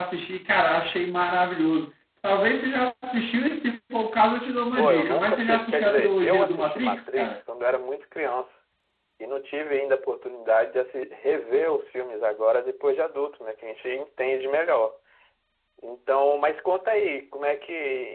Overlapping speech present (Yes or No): Yes